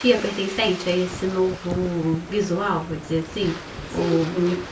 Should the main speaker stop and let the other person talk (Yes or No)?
Yes